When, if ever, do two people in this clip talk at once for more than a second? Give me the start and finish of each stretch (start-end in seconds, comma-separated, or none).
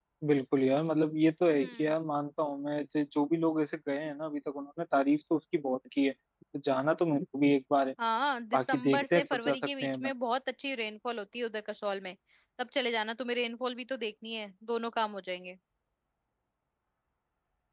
8.5-10.1